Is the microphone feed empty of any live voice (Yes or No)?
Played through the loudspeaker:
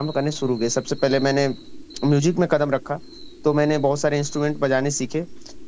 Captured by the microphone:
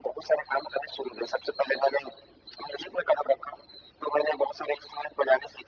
Yes